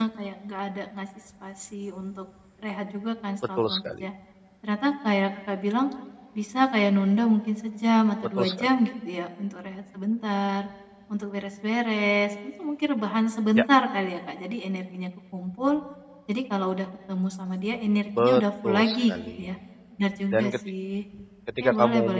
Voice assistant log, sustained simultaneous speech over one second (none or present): present